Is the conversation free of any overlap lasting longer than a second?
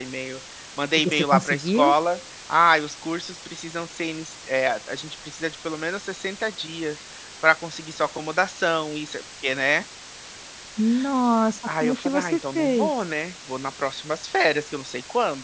No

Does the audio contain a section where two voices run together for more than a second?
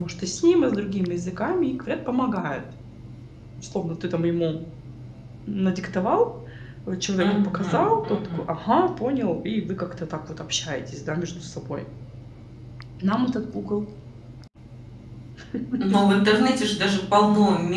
Yes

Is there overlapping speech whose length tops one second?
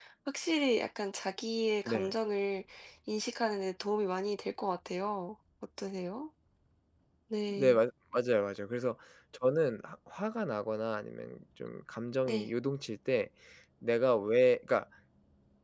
No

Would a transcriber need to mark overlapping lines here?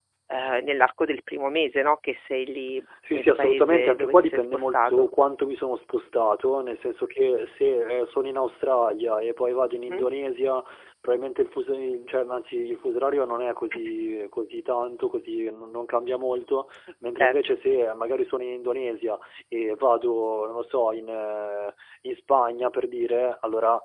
Yes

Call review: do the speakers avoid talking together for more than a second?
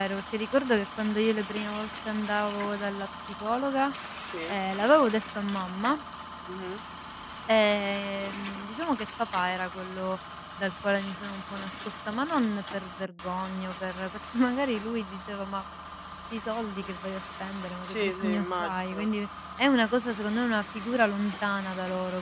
No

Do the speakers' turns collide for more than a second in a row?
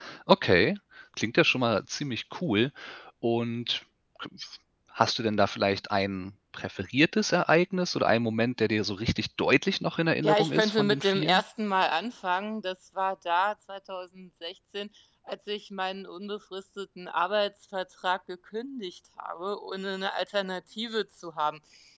Yes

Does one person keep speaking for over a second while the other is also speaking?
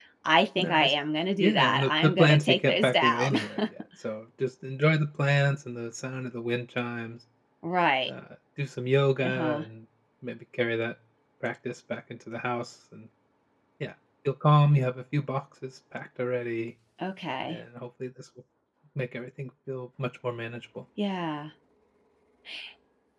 Yes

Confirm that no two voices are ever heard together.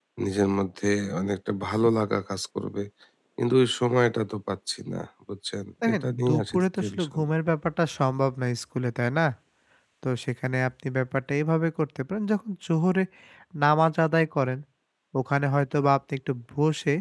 No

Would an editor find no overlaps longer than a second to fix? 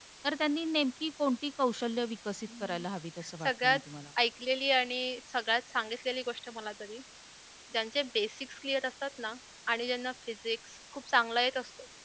Yes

